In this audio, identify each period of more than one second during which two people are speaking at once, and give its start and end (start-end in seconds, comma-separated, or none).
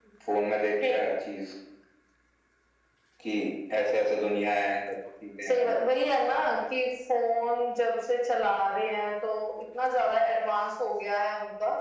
none